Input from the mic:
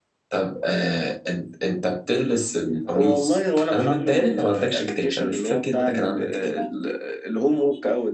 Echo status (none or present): present